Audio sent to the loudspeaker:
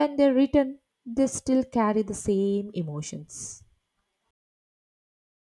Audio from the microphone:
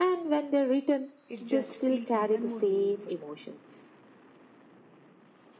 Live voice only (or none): it just feel even more meaningful.